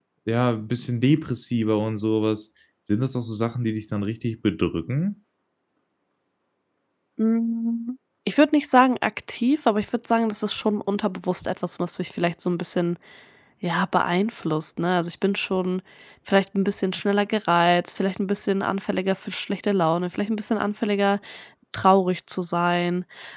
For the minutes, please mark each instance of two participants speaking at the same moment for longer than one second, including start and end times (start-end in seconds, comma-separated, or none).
none